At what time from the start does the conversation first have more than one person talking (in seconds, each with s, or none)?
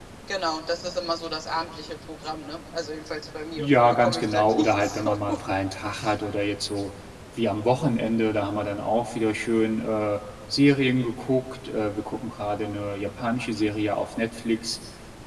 3.6 s